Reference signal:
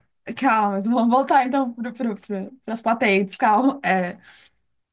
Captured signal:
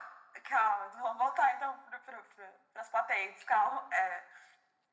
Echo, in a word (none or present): present